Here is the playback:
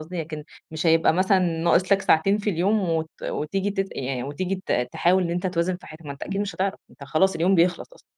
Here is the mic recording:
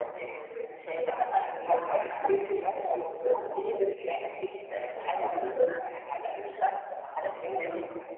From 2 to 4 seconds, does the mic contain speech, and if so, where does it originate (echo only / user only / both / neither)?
echo only